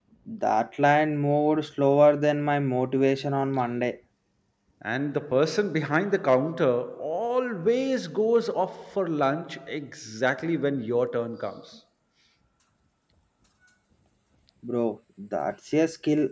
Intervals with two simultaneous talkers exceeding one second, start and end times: none

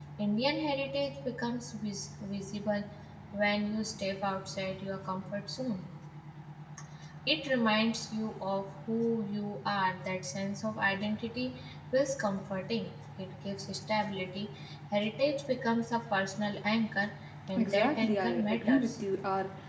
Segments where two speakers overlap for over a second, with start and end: 17.6-18.9

